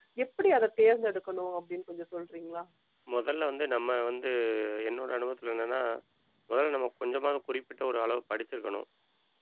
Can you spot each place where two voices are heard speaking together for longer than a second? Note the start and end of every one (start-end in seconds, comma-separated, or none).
none